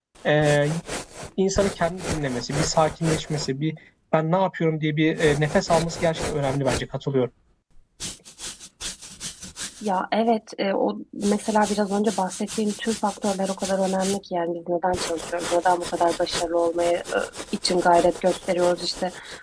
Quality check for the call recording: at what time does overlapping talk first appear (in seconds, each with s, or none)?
none